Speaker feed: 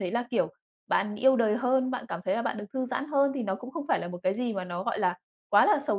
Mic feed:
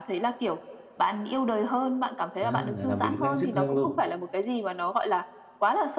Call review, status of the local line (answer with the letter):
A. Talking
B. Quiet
A